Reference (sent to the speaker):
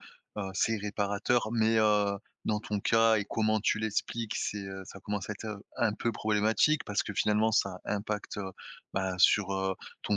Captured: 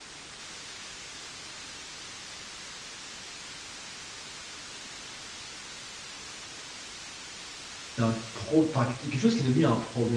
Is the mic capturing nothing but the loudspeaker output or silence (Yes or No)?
No